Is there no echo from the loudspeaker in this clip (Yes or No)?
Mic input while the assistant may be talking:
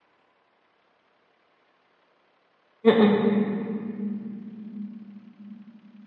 Yes